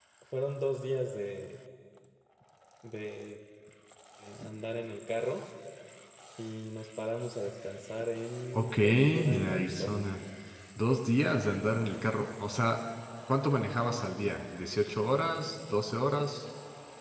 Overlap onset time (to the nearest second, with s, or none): 9 s